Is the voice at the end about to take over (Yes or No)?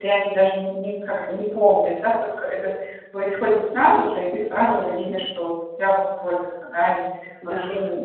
No